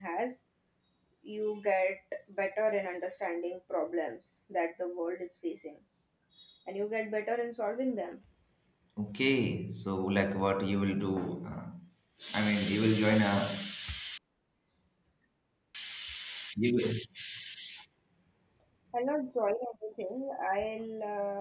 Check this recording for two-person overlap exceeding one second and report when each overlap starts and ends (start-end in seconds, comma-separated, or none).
none